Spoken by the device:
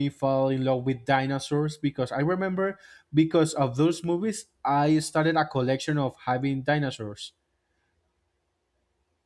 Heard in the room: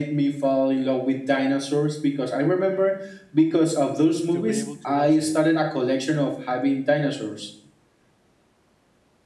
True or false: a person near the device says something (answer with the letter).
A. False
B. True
B